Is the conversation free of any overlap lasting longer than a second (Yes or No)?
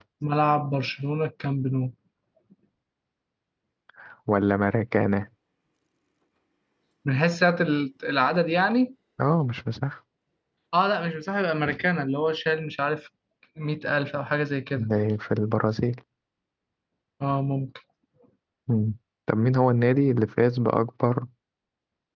Yes